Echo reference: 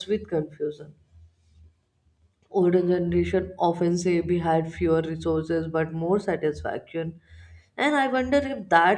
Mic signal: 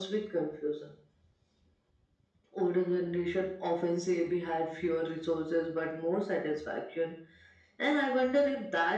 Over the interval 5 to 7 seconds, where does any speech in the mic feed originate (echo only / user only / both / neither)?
echo only